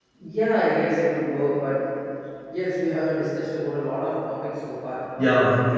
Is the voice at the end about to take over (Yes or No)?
Yes